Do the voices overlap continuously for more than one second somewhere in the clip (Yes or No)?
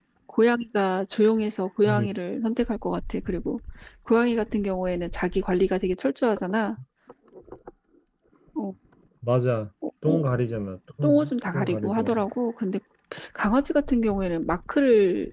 Yes